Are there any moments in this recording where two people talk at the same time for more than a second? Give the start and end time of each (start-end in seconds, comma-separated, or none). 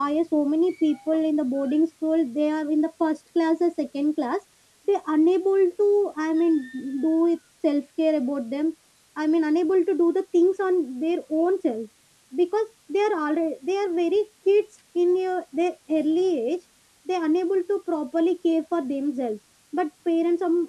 none